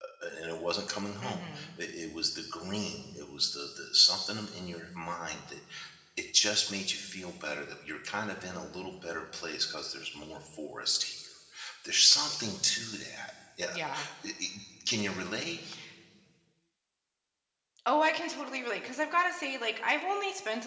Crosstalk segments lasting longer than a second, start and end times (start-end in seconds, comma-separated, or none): none